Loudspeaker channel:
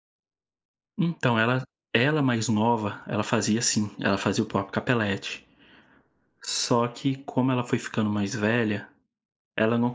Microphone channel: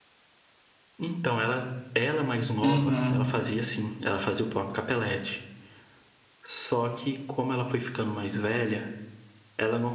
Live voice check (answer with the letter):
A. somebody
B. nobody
A